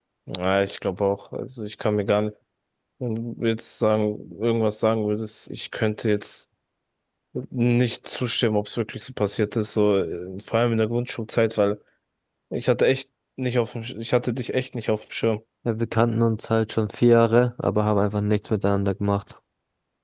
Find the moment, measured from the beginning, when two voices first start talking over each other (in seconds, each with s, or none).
none